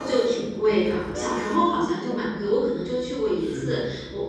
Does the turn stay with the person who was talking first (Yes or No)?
Yes